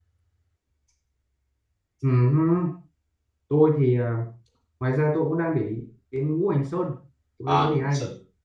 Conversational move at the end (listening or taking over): taking over